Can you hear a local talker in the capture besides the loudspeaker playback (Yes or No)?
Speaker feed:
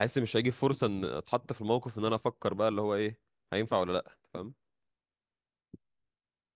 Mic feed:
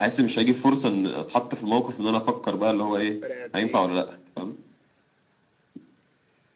Yes